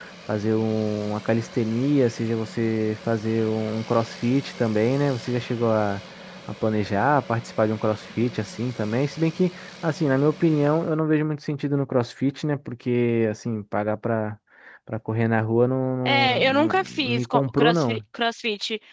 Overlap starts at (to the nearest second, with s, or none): 16 s